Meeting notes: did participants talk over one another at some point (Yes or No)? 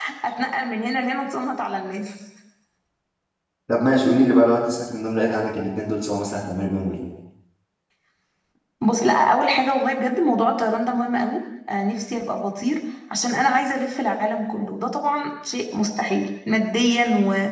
No